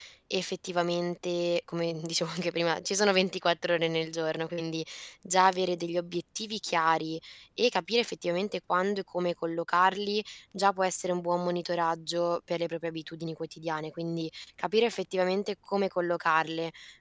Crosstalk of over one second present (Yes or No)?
No